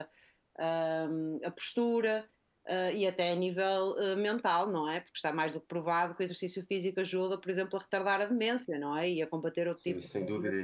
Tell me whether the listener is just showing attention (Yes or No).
No